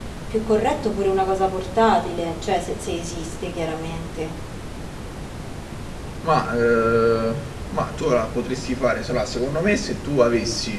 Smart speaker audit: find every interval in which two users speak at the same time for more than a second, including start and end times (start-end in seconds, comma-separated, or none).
none